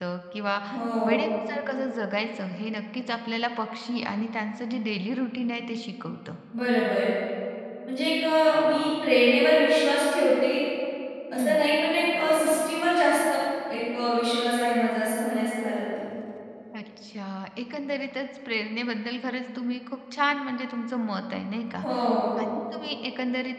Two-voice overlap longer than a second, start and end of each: none

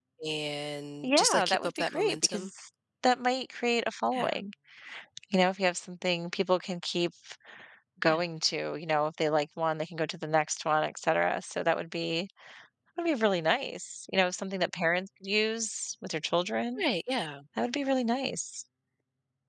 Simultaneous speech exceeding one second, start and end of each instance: 1.0-2.5

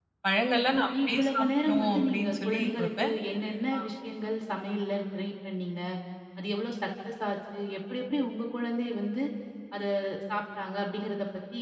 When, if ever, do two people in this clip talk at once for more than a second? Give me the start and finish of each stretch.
1.1-3.1

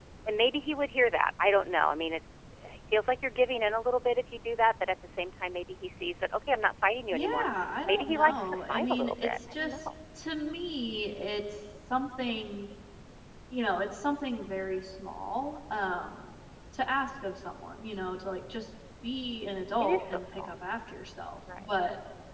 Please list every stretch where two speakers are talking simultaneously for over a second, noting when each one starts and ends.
7.8-9.8, 19.3-20.5

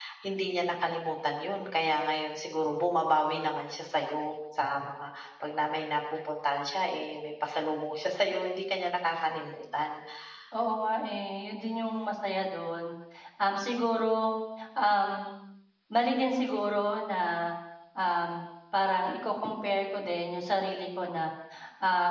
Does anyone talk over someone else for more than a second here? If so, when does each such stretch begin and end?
none

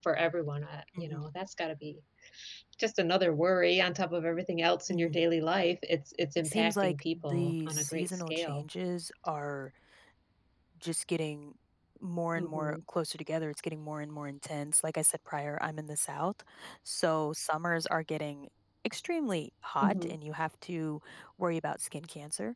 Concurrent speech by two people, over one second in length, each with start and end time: 6.4-8.7

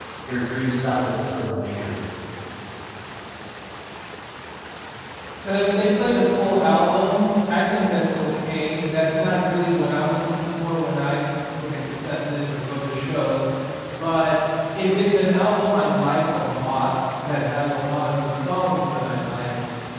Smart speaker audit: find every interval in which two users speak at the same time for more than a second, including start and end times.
none

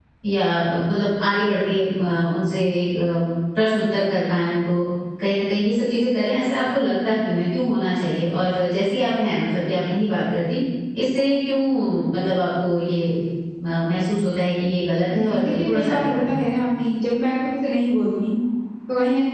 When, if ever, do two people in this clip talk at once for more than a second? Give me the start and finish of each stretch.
15.1-16.6

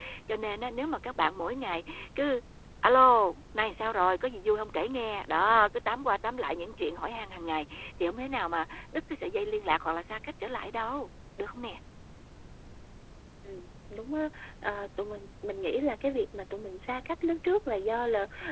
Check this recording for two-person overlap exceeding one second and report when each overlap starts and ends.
none

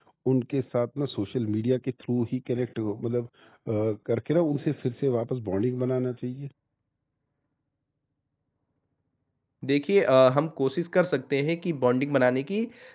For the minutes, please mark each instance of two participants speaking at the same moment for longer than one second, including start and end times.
none

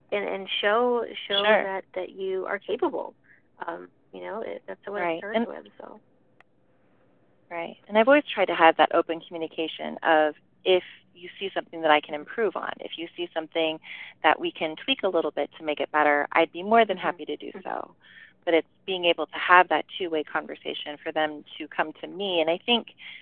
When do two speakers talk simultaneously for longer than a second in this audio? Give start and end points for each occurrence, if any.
none

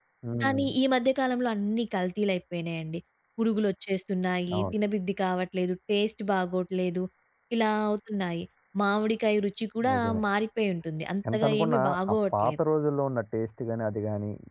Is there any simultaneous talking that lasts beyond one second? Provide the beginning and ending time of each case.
11.3-12.6

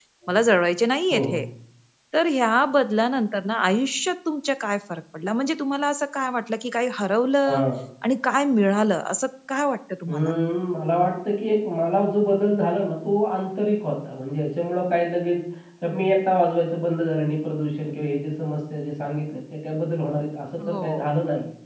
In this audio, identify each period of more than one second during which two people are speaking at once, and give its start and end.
none

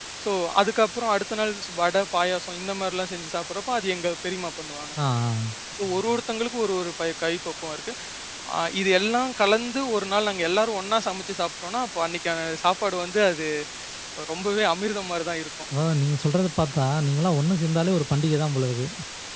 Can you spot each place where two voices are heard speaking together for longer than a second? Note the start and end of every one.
none

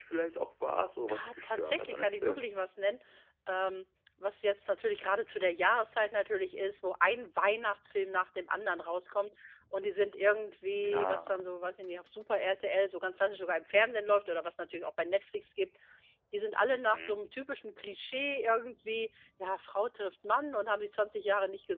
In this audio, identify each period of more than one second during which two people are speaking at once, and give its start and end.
1.1-2.4

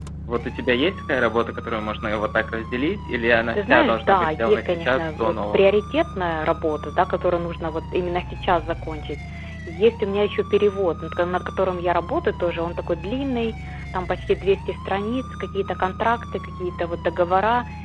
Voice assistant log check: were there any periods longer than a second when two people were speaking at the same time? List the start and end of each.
3.5-5.6

